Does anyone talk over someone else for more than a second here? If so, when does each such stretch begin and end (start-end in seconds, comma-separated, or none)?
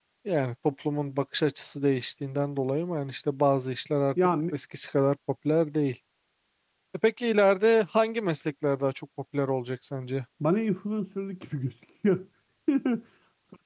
none